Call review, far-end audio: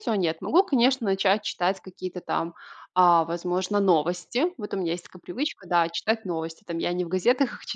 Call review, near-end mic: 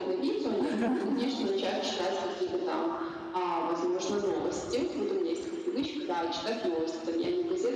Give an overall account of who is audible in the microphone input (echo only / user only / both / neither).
both